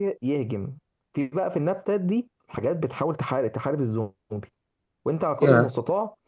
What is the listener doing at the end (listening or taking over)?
listening